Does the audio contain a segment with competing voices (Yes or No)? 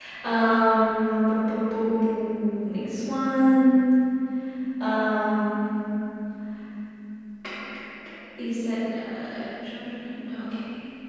No